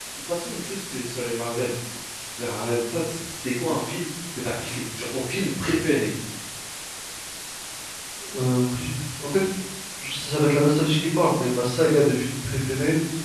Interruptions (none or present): none